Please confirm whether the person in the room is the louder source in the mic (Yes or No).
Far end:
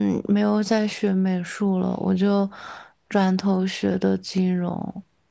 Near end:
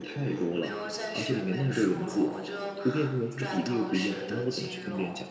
Yes